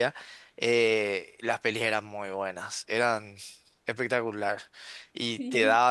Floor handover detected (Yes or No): No